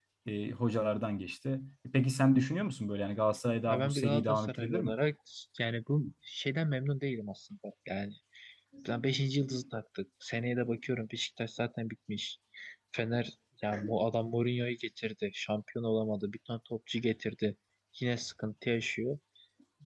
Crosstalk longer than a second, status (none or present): present